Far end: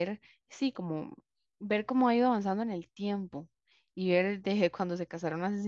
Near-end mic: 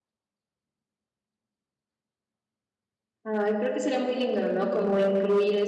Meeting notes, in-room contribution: present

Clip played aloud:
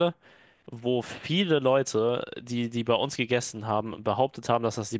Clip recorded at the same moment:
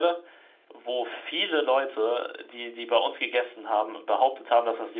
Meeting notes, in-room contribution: none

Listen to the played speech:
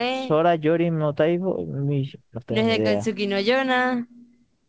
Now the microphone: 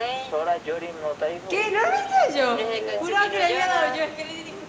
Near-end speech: present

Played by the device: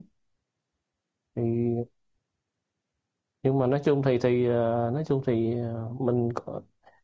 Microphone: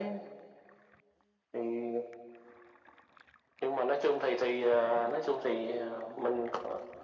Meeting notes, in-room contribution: none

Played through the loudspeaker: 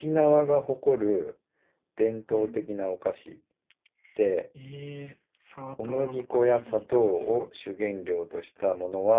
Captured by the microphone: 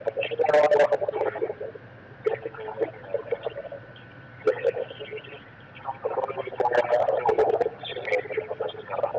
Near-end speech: none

